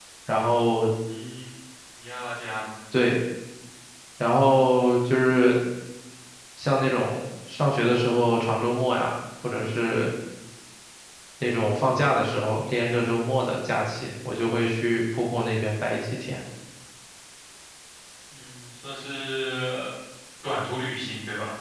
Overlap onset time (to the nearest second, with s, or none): none